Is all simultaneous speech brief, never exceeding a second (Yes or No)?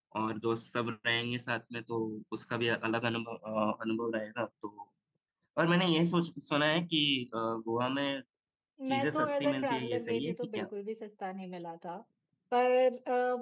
No